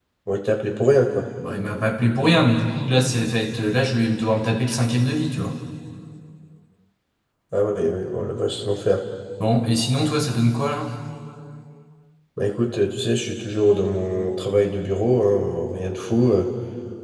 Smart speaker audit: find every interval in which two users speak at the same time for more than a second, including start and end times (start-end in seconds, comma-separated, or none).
none